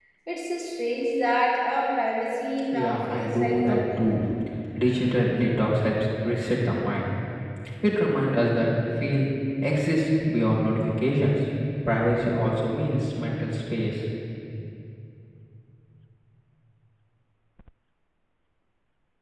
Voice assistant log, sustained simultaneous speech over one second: present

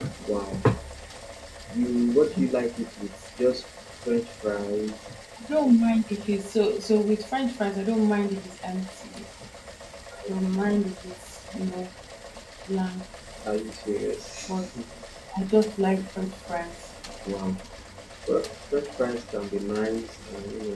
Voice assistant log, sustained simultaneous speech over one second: none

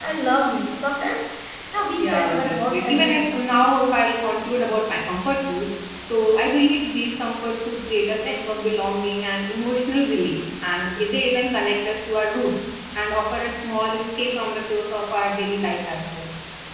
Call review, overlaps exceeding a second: present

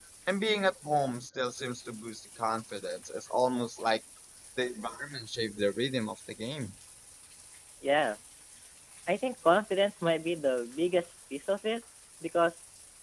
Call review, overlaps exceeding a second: none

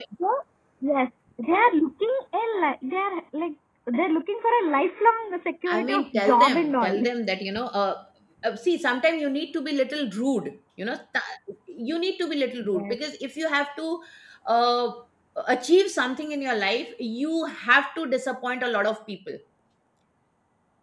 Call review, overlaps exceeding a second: present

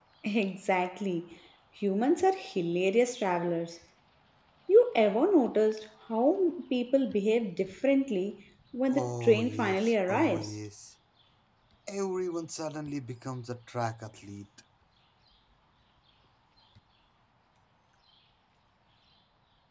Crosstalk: present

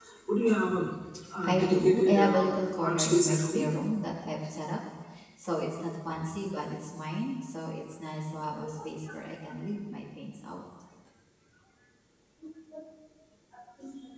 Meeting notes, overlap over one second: present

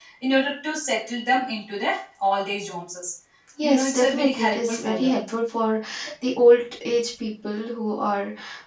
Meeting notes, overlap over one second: present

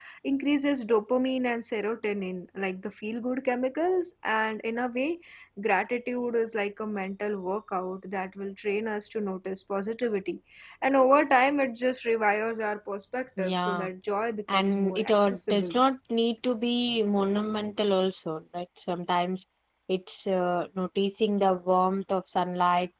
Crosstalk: present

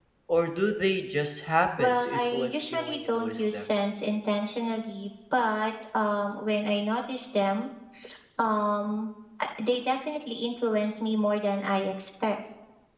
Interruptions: present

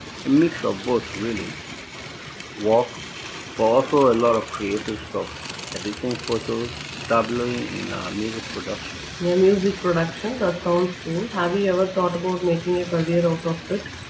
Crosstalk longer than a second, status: none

